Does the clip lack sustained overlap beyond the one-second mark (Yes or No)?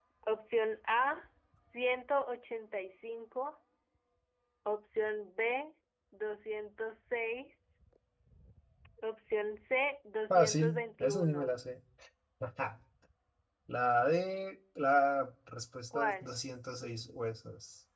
No